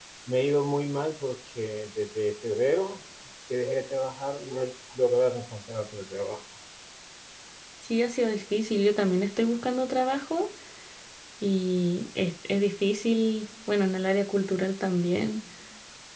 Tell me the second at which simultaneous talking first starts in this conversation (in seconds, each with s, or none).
none